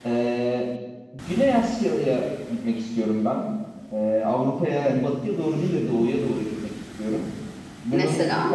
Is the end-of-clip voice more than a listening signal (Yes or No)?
No